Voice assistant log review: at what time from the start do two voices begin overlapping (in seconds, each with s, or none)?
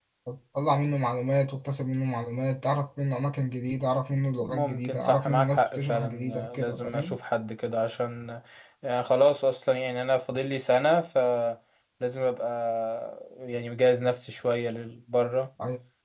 4.4 s